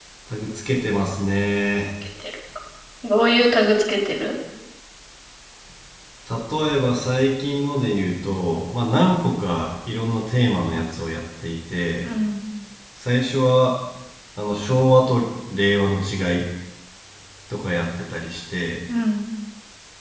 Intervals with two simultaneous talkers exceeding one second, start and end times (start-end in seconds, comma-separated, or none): none